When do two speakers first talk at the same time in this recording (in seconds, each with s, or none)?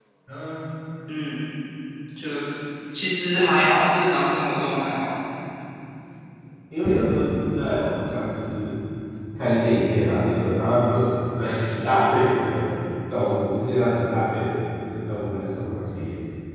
none